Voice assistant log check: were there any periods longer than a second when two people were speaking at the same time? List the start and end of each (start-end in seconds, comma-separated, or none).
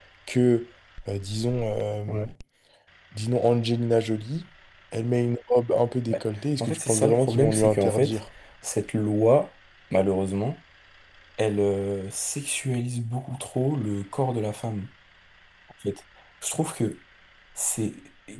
6.6-8.2